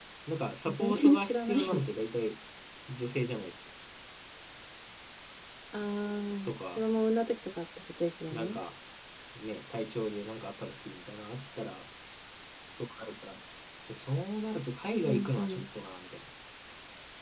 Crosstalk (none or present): present